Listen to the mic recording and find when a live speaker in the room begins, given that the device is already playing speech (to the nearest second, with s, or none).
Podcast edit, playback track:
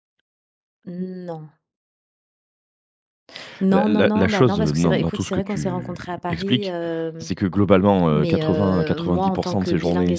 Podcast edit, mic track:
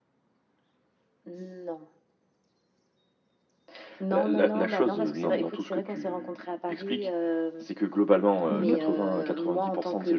8 s